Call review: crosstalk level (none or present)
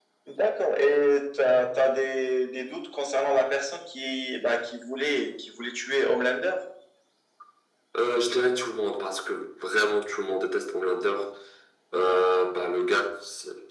none